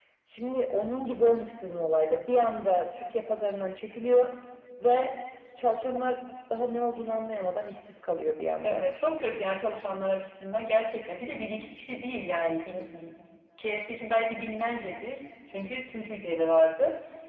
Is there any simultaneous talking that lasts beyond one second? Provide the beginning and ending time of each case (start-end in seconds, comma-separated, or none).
none